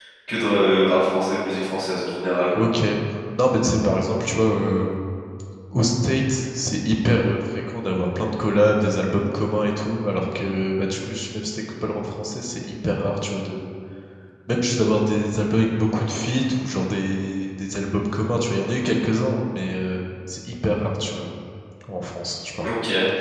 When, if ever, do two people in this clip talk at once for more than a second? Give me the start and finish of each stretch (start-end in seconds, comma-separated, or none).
none